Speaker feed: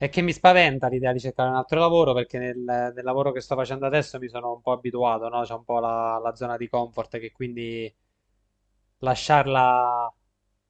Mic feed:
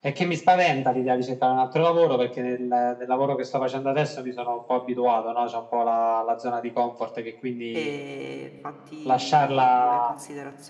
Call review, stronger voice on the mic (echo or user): echo